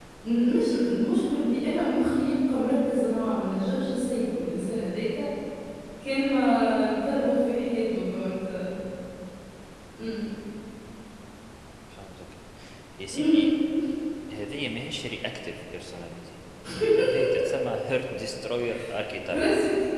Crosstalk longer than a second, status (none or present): none